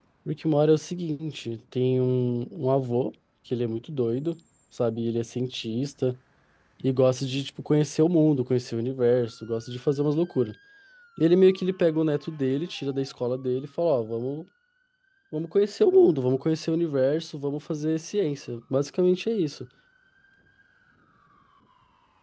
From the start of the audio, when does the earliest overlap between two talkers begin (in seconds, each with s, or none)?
none